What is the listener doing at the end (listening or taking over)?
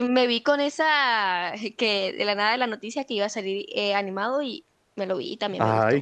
taking over